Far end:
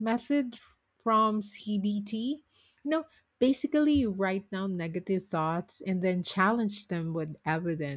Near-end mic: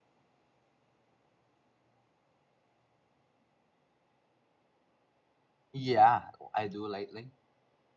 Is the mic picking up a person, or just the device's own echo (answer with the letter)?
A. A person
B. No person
A